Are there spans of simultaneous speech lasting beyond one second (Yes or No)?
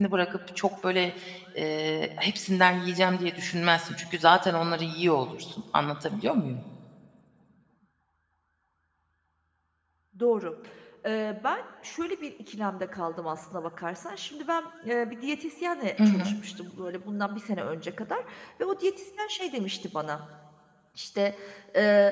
No